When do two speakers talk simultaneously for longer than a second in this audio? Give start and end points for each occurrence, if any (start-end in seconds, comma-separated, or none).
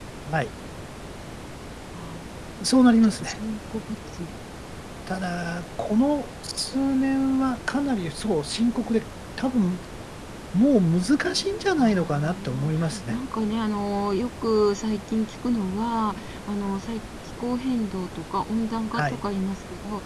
11.8-13.2